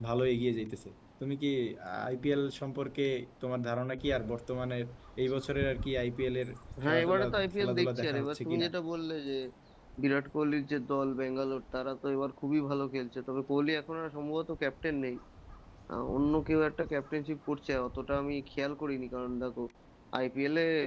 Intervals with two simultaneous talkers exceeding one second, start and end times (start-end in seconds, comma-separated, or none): 6.9-8.7